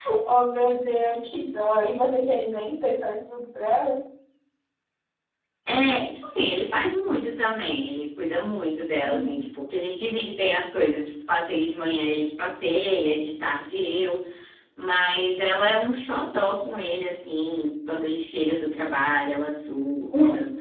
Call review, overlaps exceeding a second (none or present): none